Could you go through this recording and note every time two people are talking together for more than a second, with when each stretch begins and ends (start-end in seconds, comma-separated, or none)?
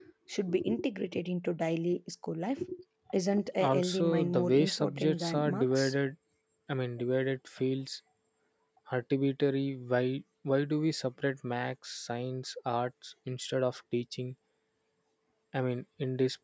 3.6-5.9